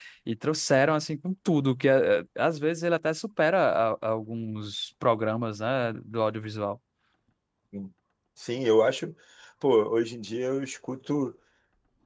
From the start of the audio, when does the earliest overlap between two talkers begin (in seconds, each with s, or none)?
none